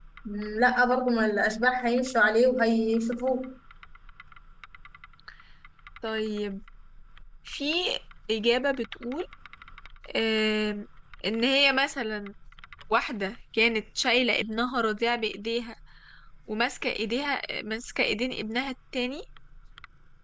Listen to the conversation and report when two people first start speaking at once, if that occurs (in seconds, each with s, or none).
none